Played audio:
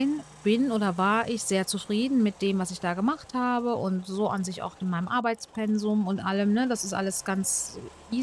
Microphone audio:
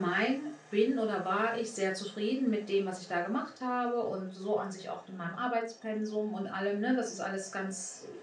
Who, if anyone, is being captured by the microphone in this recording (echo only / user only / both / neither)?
echo only